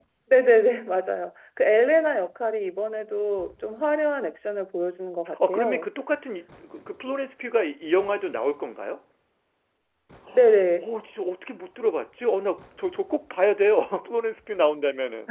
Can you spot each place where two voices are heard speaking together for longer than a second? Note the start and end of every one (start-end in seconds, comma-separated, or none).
none